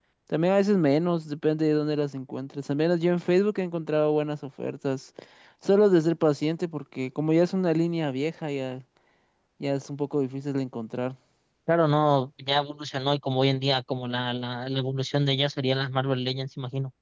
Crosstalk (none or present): none